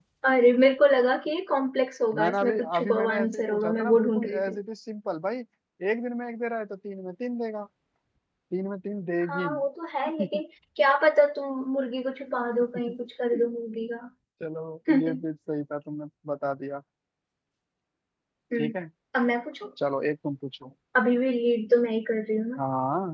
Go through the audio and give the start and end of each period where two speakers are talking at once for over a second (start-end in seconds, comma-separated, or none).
2.2-4.6